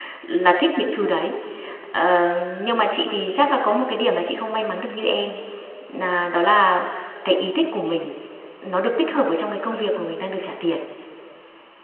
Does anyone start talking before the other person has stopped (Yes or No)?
No